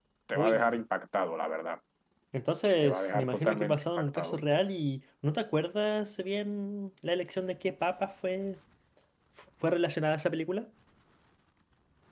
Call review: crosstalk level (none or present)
present